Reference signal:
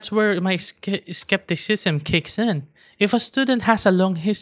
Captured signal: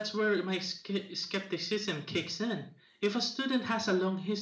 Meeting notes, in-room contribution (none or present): none